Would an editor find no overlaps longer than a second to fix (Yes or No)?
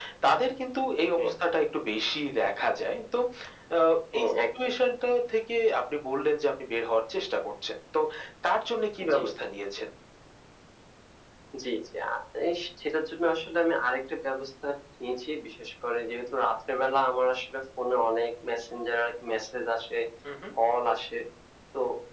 Yes